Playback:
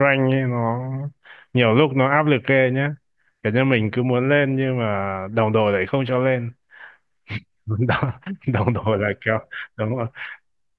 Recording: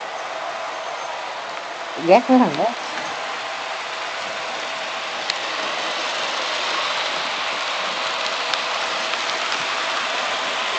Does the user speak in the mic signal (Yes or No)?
Yes